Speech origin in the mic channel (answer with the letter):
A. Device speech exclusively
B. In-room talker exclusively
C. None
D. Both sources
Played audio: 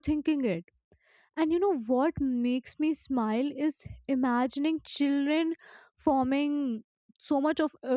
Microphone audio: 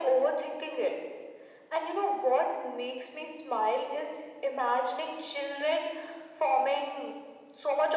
A